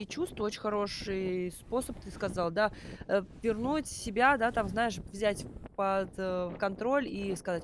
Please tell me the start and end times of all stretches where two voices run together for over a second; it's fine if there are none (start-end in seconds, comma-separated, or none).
none